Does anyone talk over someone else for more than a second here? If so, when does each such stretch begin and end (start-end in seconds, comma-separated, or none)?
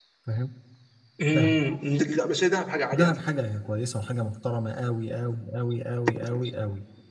none